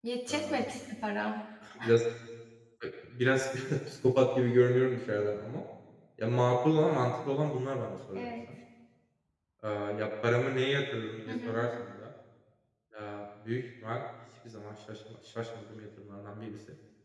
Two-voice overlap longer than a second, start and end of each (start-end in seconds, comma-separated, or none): none